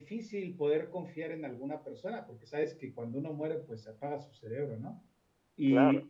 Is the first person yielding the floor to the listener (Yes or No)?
No